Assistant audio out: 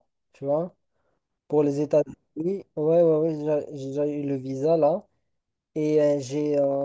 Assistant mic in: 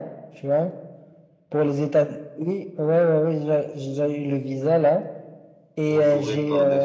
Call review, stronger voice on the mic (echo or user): echo